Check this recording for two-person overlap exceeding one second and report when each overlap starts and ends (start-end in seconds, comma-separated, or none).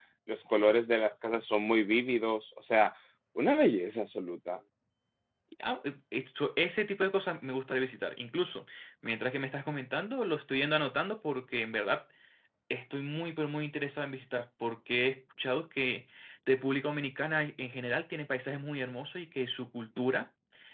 none